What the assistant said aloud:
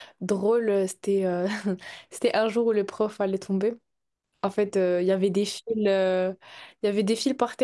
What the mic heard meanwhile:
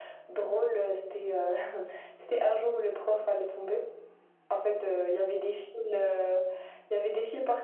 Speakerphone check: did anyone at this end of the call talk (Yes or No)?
No